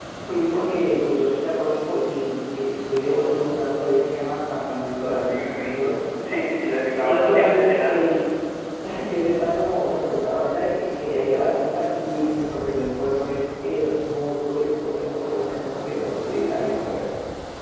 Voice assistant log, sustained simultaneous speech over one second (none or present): present